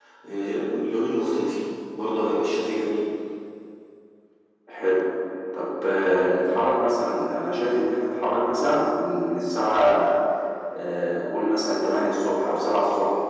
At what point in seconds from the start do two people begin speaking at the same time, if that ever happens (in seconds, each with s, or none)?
none